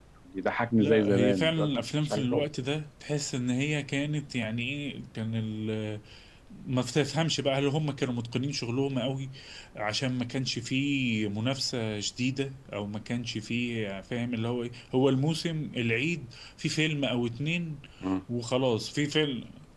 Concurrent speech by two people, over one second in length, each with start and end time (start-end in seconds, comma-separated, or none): 0.8-2.4